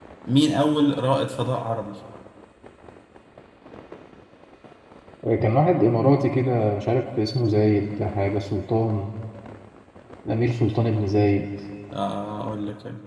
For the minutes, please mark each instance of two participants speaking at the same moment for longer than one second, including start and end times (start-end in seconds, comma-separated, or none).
none